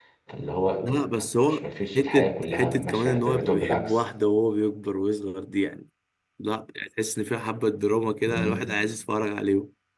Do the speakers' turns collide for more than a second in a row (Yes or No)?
Yes